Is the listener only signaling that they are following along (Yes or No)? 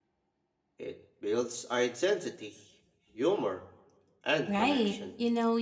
No